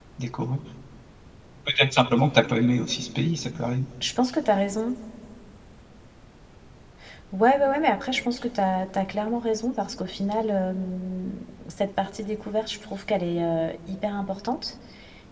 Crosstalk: none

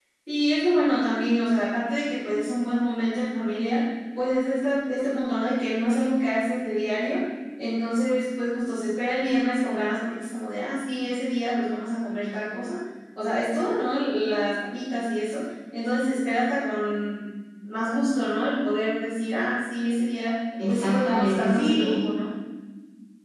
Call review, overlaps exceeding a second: present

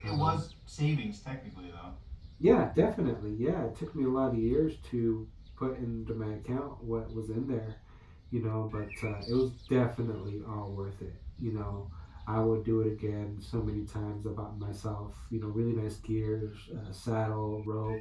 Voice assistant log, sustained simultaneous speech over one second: none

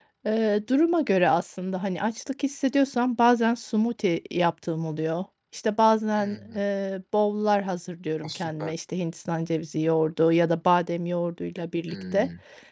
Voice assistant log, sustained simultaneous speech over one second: none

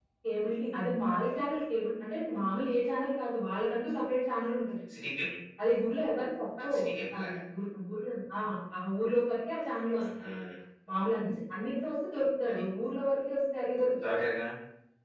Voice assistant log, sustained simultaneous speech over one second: none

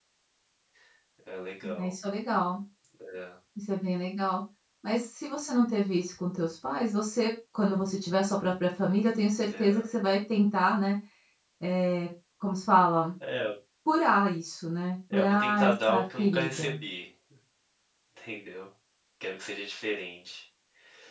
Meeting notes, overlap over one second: present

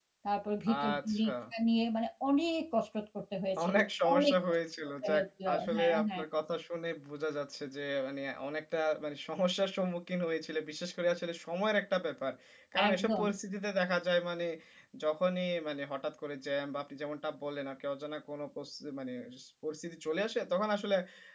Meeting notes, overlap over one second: present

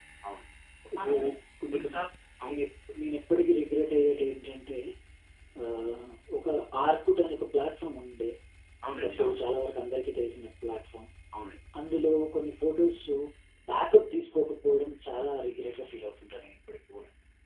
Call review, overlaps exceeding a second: none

